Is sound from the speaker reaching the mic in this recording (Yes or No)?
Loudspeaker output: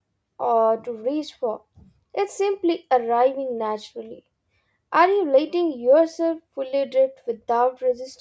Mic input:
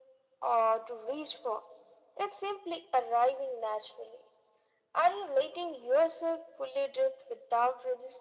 Yes